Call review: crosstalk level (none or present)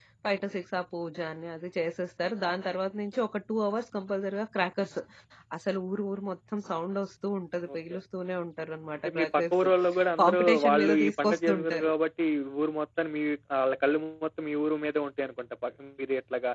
present